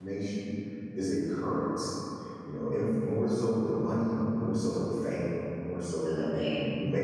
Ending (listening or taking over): listening